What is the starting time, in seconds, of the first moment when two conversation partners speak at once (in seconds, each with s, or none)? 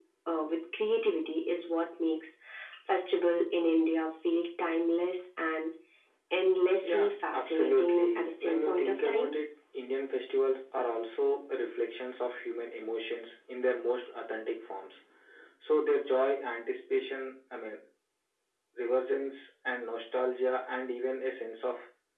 6.8 s